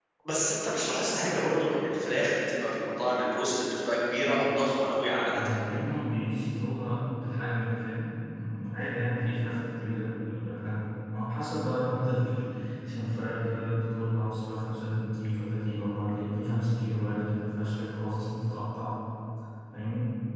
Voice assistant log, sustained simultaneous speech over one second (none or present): none